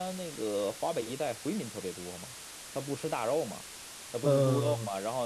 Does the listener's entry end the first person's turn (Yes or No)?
No